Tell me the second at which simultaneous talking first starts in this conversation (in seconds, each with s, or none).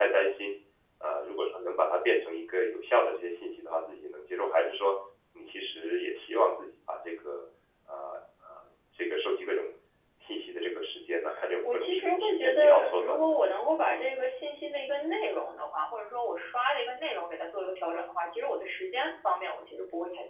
11.6 s